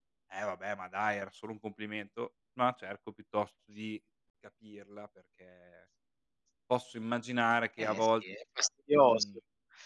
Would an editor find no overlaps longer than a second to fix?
Yes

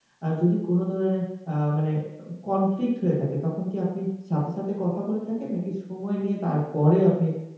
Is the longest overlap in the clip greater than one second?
No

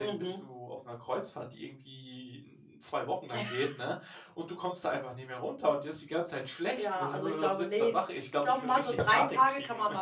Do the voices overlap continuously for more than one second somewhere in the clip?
Yes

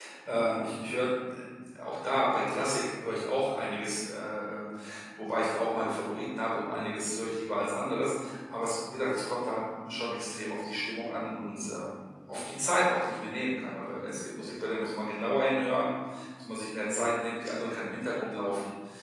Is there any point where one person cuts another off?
No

